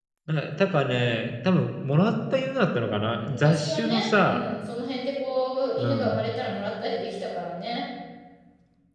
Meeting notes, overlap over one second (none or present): present